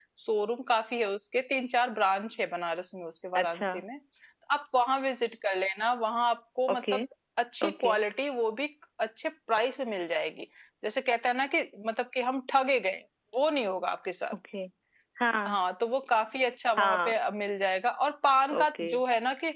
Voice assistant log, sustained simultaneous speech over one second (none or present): none